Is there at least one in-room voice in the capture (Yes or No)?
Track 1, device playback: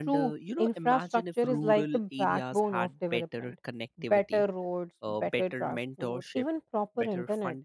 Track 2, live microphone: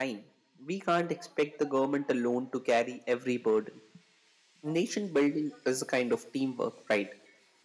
Yes